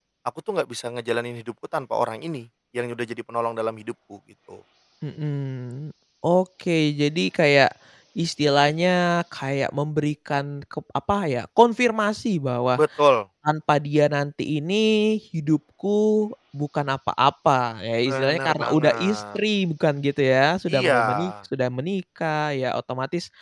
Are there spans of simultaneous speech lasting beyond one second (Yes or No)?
Yes